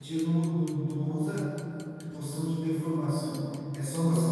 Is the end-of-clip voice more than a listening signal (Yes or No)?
No